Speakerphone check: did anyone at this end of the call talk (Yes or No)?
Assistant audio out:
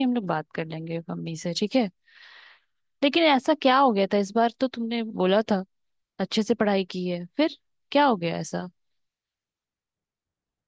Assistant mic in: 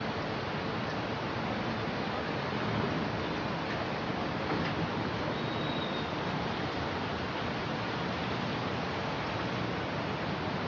No